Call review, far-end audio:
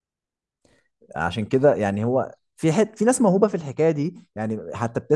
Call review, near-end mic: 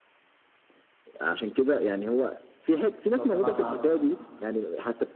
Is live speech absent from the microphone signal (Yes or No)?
No